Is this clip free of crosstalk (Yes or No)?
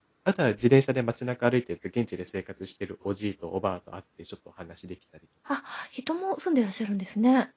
Yes